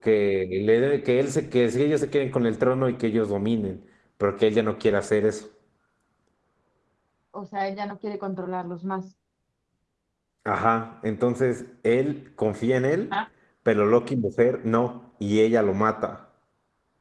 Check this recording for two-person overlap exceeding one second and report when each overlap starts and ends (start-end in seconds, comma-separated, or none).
none